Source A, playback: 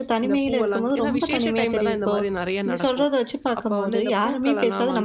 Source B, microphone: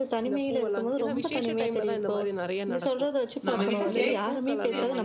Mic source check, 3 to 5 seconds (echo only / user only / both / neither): both